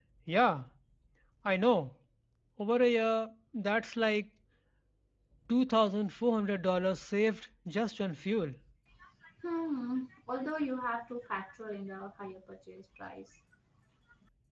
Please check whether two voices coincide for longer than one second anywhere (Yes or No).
No